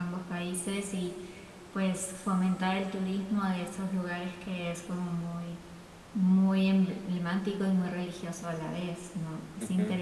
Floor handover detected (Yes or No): Yes